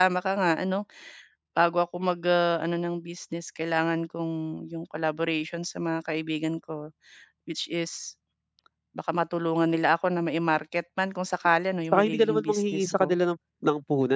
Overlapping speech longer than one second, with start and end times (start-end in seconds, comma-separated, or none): 11.9-13.2